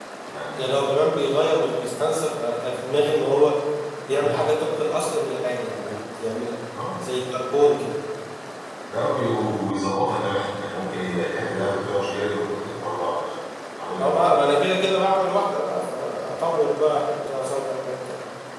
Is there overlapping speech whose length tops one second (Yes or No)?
No